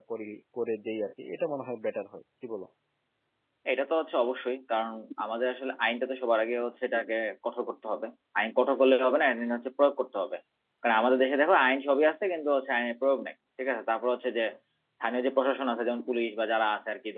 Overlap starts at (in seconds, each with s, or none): none